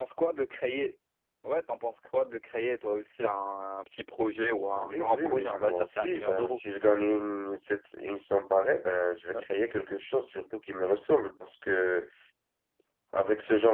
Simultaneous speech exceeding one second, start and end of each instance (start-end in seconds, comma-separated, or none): 4.6-6.6